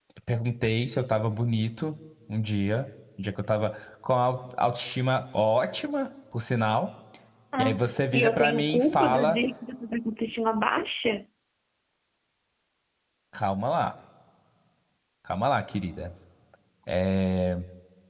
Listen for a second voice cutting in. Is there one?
Yes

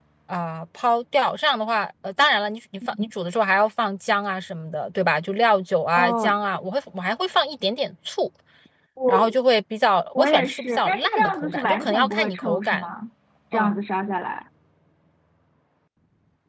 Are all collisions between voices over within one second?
No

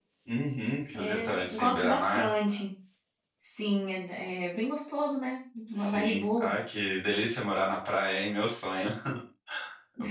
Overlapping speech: Yes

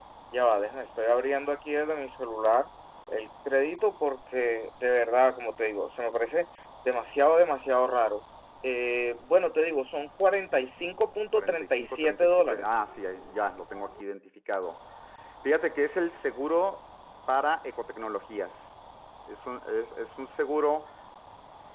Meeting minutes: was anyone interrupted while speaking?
Yes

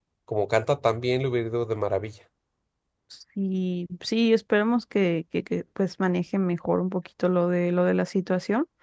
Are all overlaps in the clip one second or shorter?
Yes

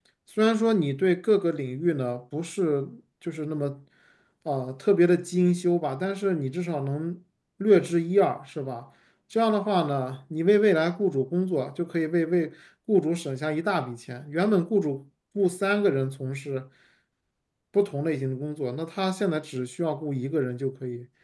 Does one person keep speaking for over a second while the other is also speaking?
No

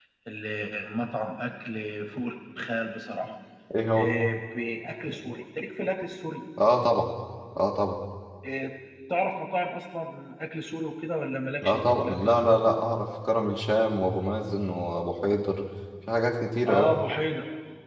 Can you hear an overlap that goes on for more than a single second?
Yes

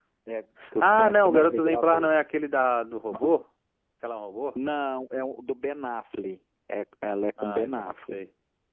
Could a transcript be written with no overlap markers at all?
No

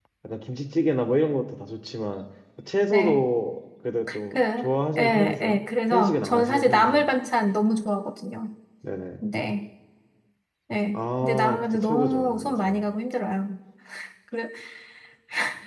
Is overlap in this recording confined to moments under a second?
No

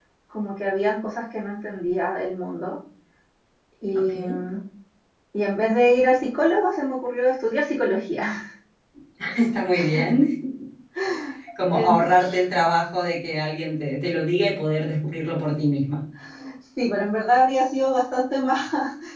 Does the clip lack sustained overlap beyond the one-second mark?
Yes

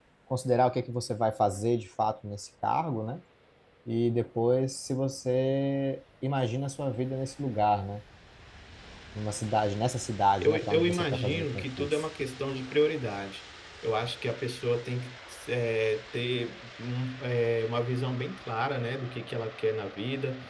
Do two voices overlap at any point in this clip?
Yes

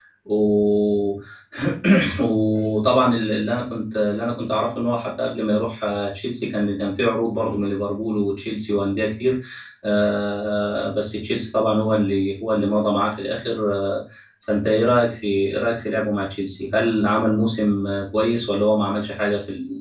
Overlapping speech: No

